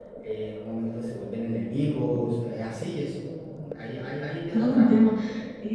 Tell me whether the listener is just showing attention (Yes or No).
No